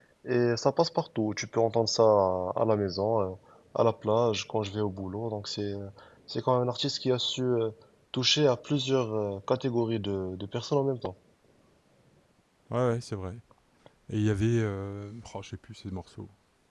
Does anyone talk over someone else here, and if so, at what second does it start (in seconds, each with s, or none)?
none